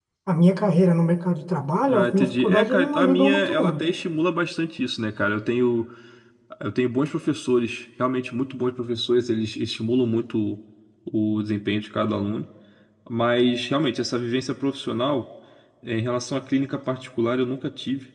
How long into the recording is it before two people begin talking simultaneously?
1.9 s

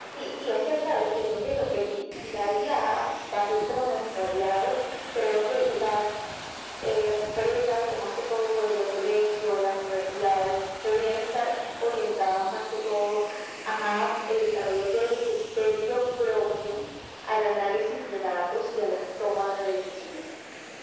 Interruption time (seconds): none

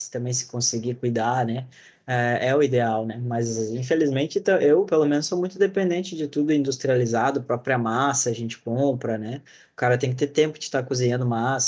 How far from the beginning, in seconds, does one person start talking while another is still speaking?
none

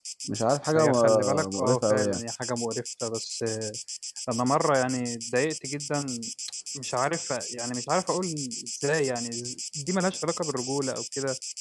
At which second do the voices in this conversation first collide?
0.8 s

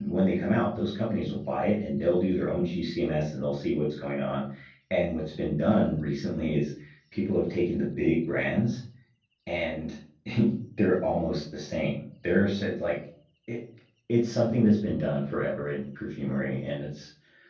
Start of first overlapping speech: none

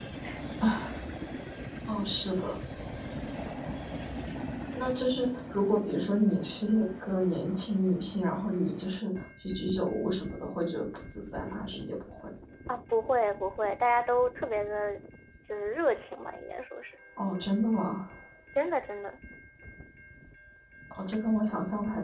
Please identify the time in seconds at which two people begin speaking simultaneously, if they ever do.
none

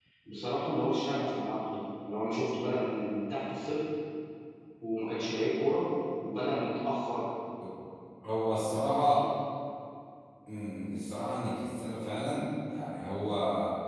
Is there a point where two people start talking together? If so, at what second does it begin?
none

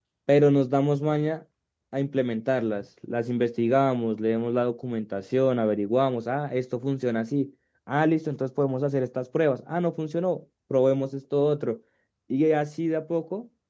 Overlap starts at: none

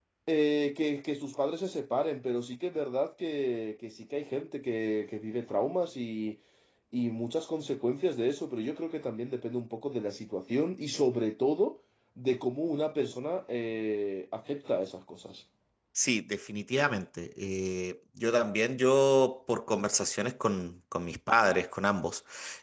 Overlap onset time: none

